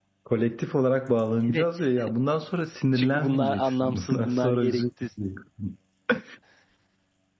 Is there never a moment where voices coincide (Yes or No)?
No